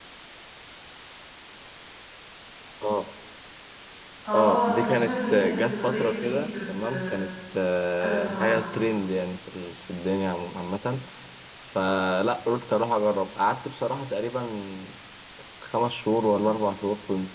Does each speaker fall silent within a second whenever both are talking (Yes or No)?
No